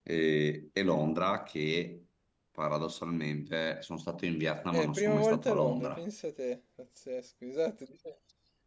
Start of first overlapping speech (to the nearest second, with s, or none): 5 s